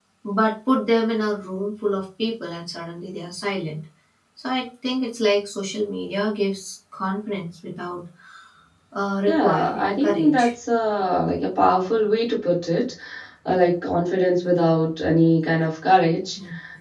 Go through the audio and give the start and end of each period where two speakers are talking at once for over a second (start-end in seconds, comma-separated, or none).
9.3-10.5